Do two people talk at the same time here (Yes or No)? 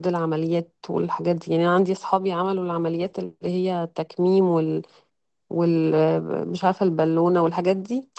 No